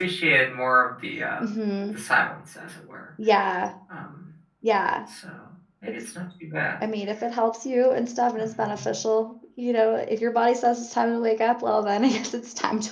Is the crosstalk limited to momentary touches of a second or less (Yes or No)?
Yes